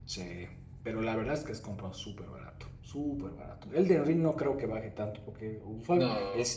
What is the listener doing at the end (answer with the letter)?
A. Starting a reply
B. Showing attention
B